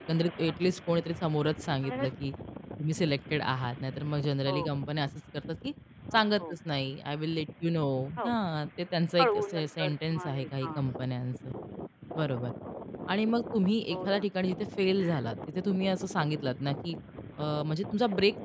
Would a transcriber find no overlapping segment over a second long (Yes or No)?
No